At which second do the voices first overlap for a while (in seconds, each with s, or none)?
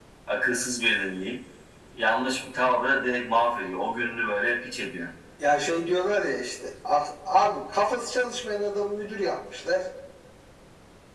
none